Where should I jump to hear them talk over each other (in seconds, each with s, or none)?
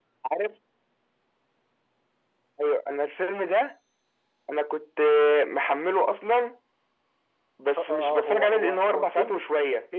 7.8 s